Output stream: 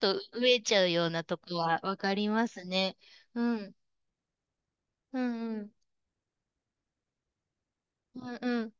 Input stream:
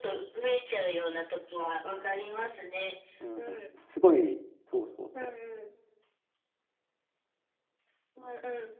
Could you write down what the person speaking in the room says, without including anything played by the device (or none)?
うん。すごい、そうそうそ